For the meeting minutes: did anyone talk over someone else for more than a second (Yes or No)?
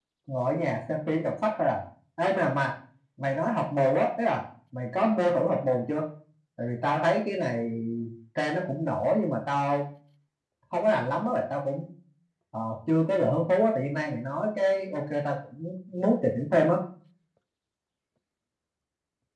No